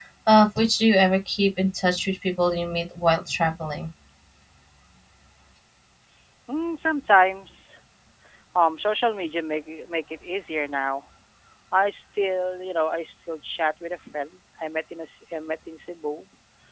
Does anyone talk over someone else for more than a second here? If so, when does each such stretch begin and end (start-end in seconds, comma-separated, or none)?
none